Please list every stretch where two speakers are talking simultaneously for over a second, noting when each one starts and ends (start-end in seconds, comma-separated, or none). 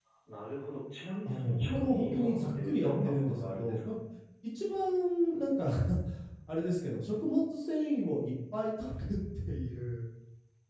1.2-4.0